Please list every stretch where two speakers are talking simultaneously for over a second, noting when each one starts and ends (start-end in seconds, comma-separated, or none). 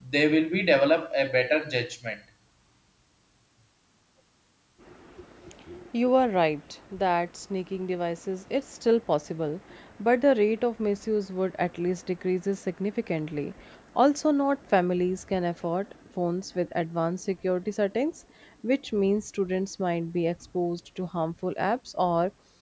none